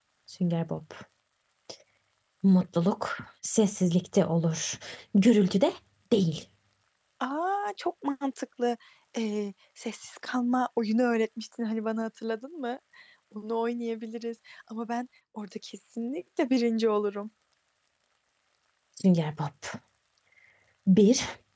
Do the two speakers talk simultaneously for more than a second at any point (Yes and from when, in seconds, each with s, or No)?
No